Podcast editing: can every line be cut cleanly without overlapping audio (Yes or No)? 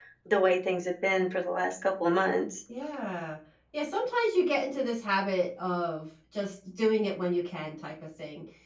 Yes